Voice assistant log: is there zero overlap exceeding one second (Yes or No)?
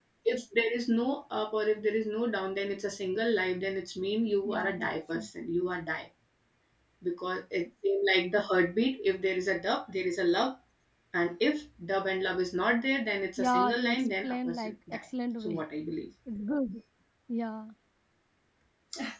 No